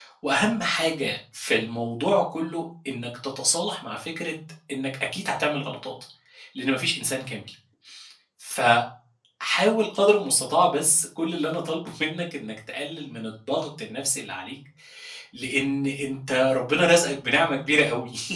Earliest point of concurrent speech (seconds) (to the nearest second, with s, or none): none